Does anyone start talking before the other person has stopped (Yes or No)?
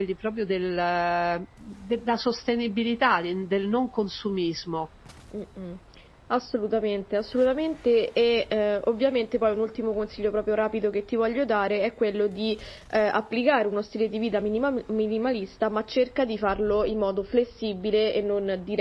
No